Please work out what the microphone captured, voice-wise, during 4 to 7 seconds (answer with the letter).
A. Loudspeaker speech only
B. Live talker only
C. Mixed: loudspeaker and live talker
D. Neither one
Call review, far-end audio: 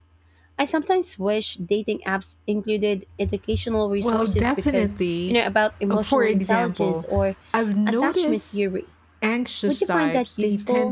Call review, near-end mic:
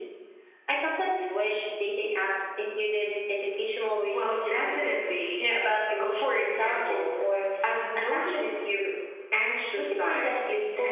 A